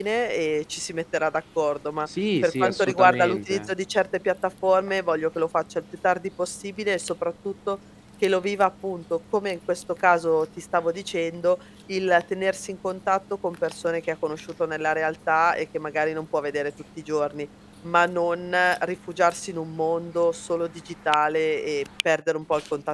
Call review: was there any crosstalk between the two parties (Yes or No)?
Yes